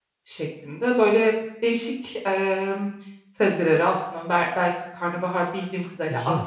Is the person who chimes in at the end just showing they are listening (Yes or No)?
Yes